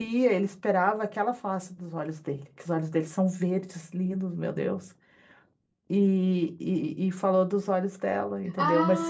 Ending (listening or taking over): taking over